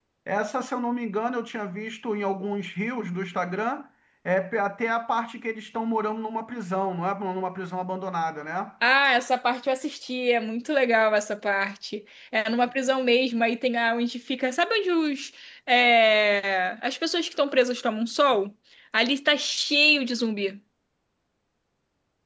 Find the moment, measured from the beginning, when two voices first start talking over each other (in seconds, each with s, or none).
none